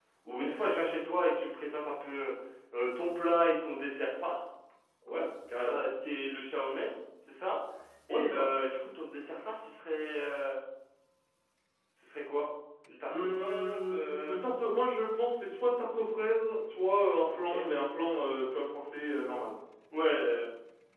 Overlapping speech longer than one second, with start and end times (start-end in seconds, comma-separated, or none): 13.1-14.4